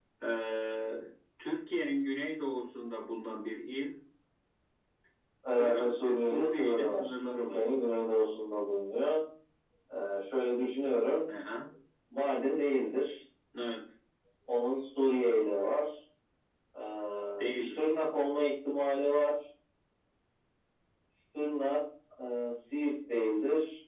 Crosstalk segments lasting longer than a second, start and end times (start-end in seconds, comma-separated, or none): 5.5-7.6